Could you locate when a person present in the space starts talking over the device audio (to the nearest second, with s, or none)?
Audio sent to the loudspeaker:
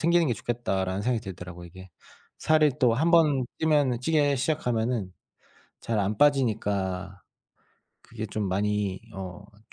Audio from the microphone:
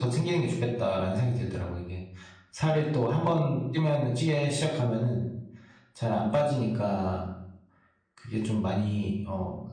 none